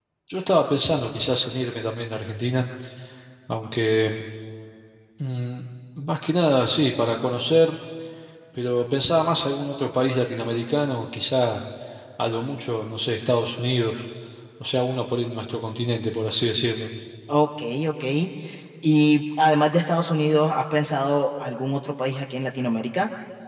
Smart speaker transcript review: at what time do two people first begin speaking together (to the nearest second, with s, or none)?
none